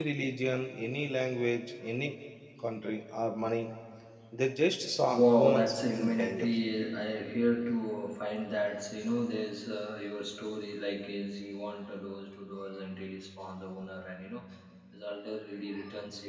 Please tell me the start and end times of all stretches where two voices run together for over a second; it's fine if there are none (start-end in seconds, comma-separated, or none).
5.2-6.5